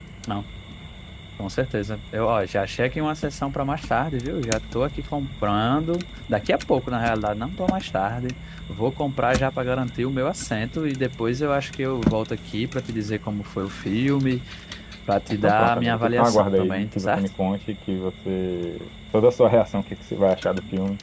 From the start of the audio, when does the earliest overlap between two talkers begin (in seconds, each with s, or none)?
15.3 s